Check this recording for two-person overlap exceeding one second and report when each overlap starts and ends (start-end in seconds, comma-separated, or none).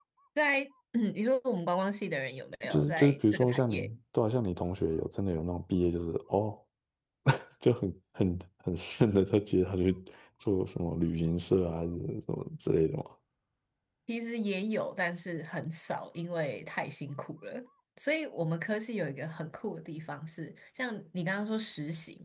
2.7-3.9